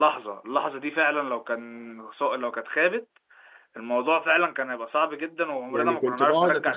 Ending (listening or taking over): taking over